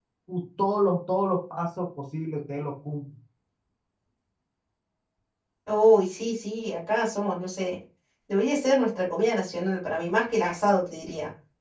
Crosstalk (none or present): none